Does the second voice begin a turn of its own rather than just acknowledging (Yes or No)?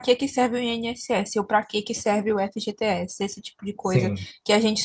No